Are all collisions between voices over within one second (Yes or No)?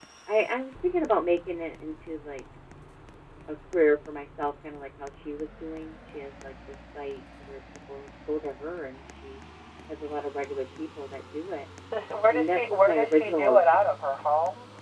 No